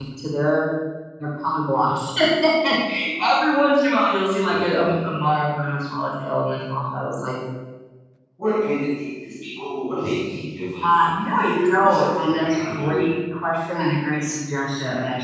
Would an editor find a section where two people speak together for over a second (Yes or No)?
Yes